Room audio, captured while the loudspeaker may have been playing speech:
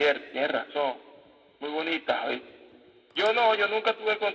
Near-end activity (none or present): none